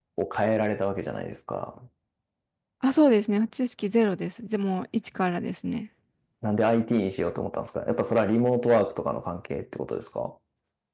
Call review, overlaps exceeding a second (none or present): none